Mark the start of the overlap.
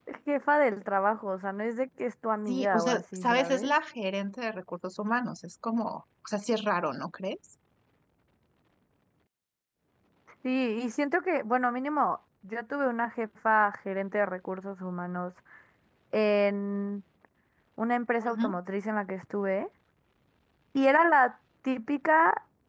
2.5 s

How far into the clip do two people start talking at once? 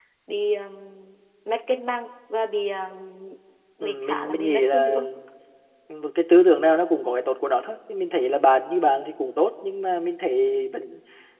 3.8 s

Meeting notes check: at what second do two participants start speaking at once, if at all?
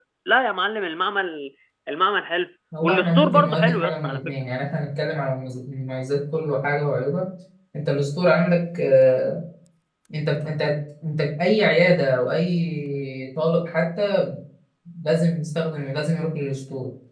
2.7 s

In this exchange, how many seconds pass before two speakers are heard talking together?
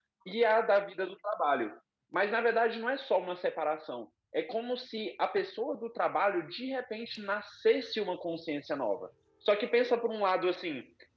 none

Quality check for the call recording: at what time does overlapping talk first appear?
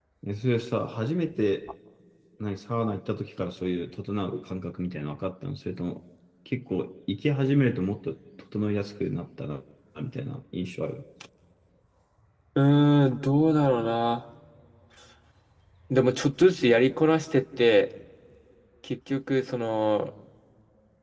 none

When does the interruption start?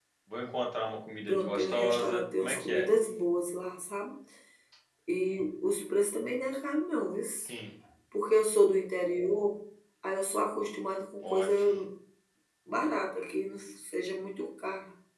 1.3 s

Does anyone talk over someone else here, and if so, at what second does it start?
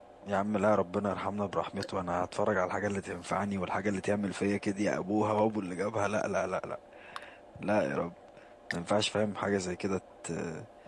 none

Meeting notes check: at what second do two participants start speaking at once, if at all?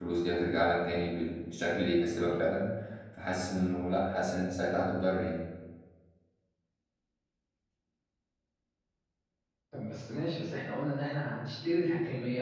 none

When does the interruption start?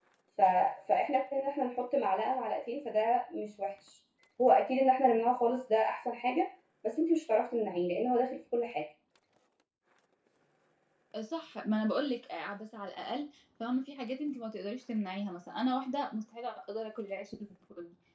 none

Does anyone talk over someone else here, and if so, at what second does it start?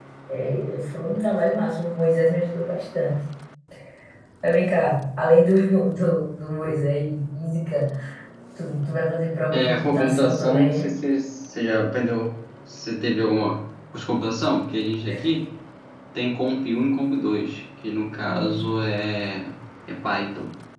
9.5 s

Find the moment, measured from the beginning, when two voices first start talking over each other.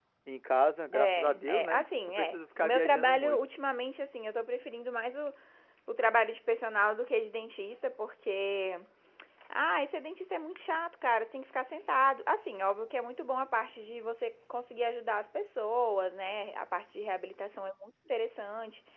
0.9 s

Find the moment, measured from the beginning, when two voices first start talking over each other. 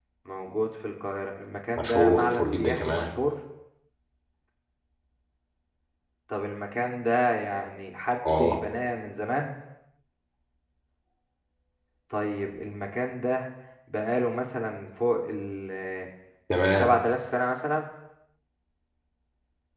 1.8 s

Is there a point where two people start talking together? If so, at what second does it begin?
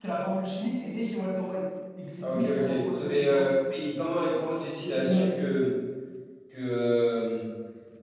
2.2 s

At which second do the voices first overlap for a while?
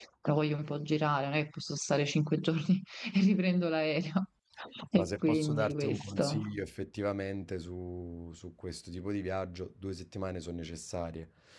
5.0 s

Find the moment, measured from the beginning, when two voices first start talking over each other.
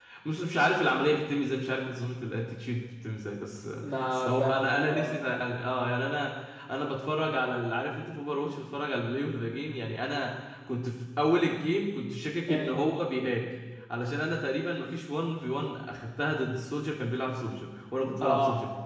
3.8 s

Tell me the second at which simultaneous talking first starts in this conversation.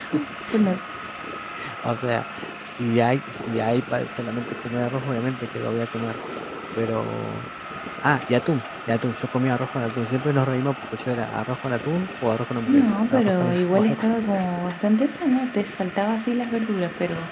12.7 s

